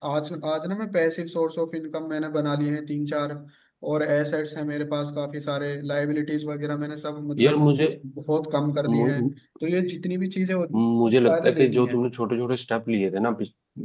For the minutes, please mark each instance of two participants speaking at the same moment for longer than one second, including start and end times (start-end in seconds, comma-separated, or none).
10.7-12.0